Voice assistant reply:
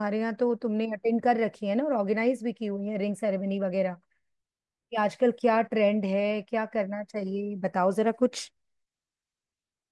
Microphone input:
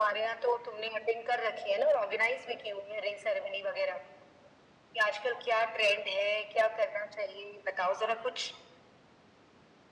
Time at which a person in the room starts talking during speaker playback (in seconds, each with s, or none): none